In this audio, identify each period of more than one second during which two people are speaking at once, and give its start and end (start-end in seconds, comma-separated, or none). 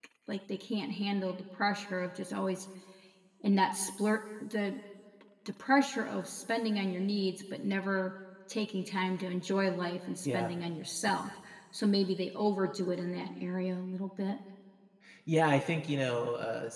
none